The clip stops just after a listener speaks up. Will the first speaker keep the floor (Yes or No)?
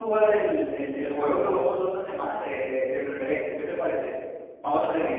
No